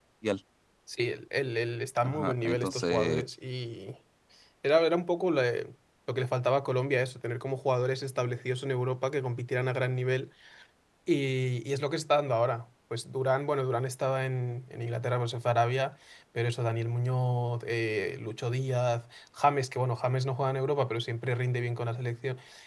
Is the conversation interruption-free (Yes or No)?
No